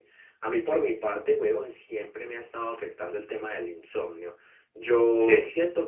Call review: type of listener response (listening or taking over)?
listening